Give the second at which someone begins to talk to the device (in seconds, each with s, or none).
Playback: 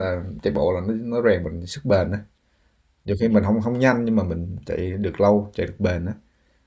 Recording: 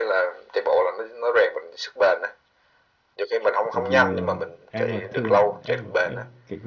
3.7 s